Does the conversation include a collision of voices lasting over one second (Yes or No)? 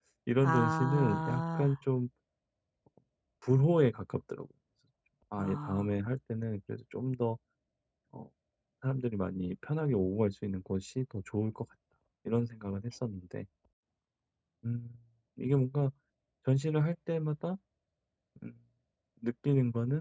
Yes